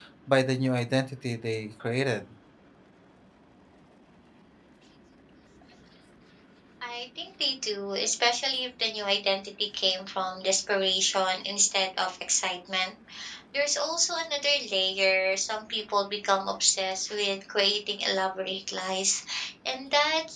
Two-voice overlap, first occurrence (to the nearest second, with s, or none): none